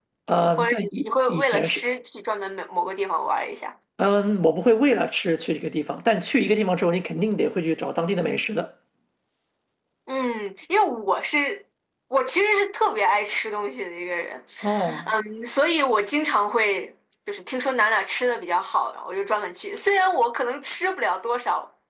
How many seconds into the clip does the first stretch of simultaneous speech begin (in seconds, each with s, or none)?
0.6 s